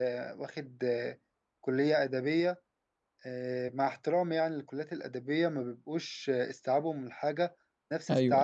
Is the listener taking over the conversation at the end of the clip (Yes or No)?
No